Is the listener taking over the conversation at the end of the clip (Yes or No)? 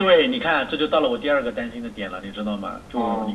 No